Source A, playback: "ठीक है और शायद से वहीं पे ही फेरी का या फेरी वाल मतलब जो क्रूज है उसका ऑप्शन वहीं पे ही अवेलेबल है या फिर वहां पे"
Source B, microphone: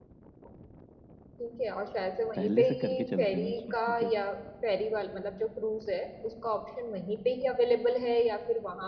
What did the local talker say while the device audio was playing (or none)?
पहले से करके चलते हैं मैंने सुना है कि